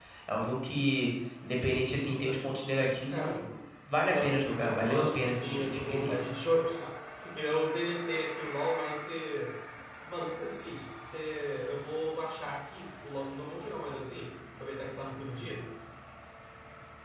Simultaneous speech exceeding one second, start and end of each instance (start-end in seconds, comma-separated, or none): 4.1-6.3